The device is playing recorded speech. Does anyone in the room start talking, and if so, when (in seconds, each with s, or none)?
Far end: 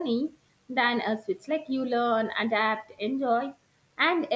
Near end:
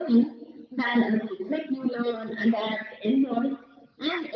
none